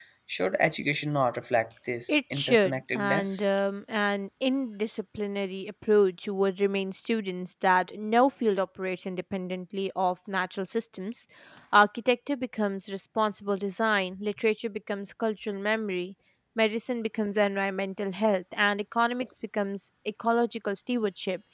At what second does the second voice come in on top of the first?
2 s

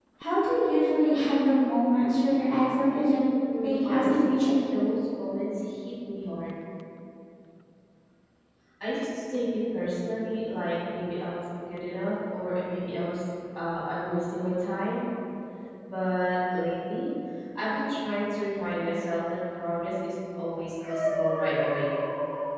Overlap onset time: 3 s

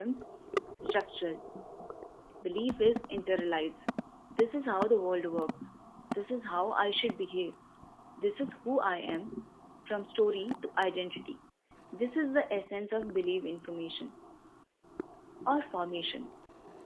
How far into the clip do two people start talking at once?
none

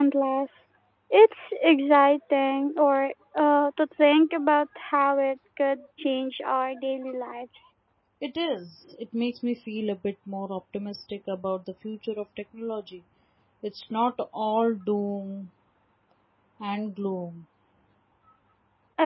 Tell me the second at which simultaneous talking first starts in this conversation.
none

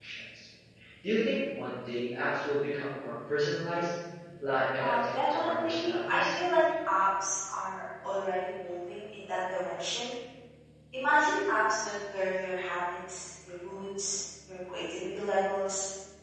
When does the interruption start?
5 s

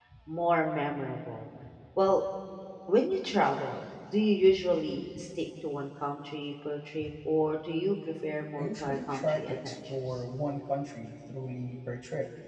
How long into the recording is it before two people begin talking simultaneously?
9 s

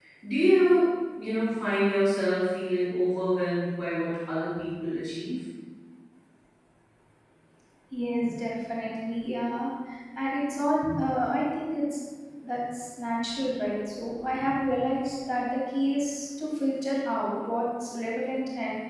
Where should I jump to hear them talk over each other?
none

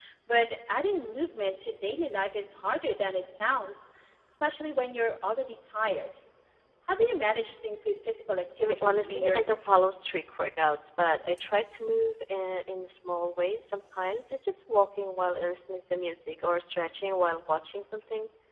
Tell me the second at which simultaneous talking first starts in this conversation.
9 s

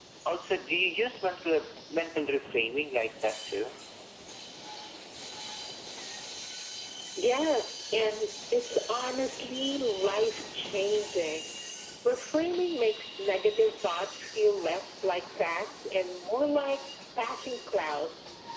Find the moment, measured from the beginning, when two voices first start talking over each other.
none

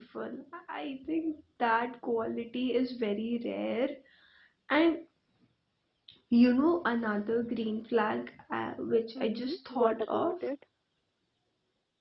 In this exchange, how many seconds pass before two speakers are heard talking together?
9 s

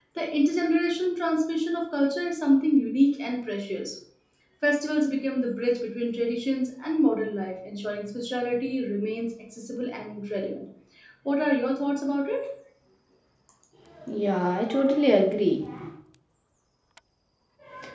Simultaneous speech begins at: none

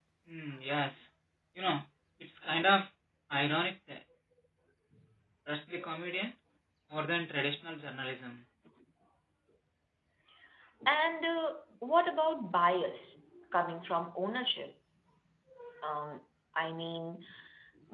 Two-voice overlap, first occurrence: none

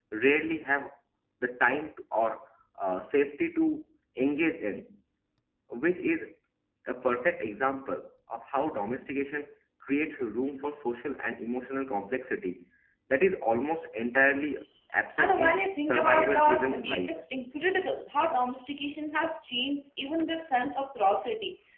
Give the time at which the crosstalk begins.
15 s

